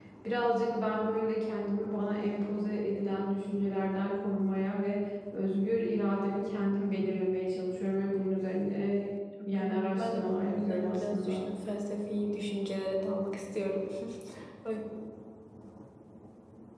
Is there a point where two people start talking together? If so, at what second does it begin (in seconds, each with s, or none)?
9.5 s